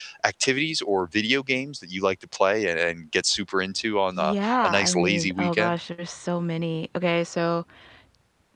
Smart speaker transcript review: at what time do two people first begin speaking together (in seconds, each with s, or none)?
4.2 s